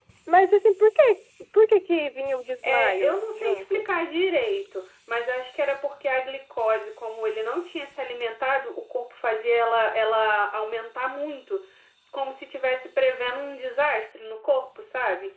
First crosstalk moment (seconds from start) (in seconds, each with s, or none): 2.6 s